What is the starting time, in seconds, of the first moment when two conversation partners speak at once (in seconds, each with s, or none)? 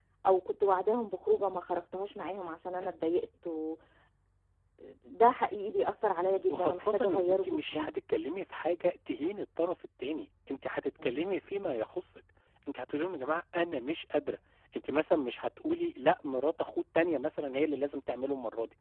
6.5 s